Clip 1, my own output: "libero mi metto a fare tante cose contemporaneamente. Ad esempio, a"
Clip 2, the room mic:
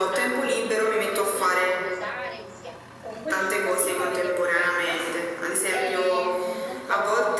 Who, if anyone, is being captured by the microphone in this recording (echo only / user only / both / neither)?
both